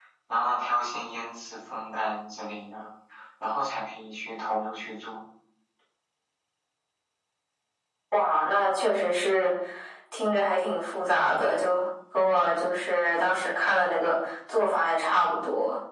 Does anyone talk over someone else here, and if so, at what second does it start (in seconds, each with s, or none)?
none